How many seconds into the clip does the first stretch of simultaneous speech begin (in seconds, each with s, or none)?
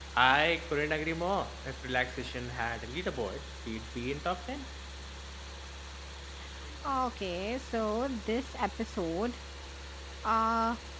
none